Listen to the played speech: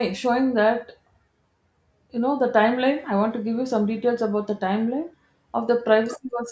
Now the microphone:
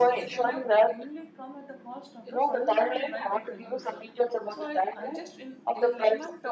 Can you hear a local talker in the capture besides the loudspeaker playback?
Yes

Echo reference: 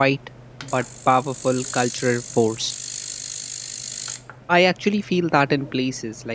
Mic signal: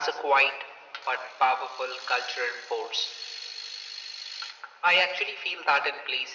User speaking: No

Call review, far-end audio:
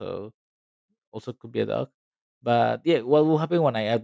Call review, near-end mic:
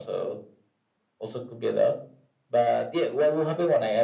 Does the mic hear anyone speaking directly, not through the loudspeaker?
No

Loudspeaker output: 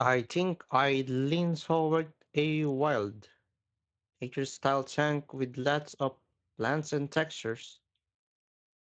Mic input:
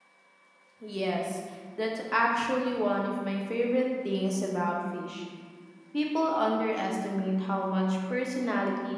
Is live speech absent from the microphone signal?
No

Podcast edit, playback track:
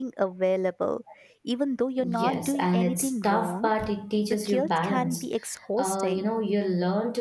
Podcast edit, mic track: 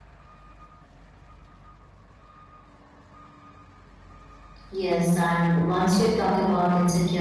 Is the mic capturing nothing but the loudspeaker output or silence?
No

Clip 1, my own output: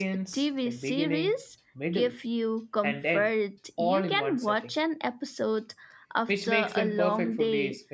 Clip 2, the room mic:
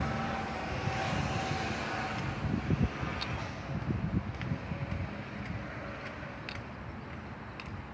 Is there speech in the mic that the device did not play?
No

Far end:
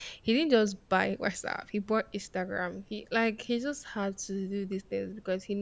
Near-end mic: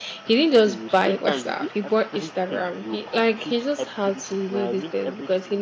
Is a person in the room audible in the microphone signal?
Yes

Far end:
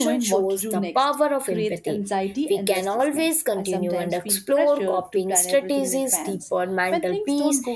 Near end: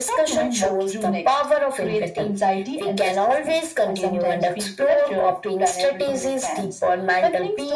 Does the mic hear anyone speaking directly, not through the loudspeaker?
No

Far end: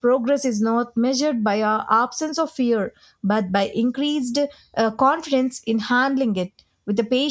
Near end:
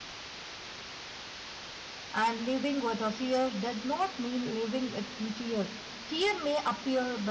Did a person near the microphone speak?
Yes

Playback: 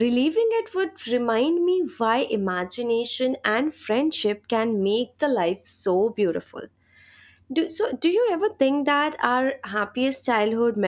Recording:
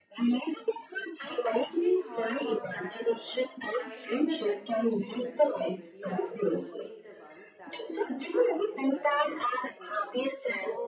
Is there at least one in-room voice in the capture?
Yes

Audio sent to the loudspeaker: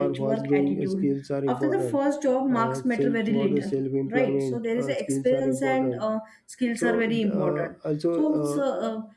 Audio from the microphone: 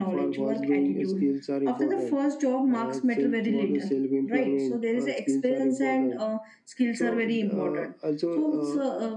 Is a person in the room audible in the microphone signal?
No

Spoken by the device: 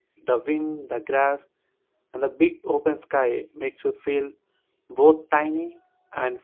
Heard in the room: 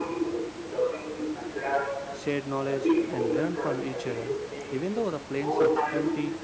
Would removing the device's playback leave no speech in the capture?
No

